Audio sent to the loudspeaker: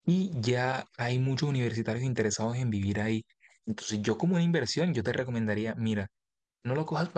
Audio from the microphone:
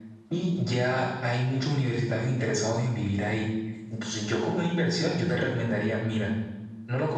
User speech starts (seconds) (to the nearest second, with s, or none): none